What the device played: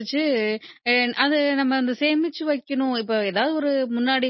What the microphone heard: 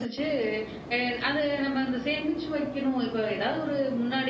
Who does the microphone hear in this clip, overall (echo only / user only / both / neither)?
echo only